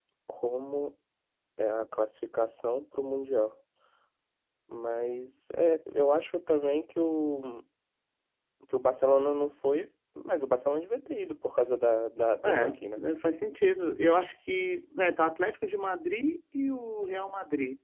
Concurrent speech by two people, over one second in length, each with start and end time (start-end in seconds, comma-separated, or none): none